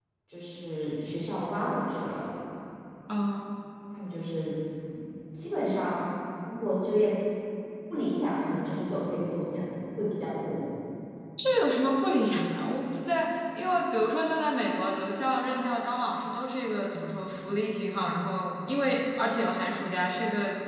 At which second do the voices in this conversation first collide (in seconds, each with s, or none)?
none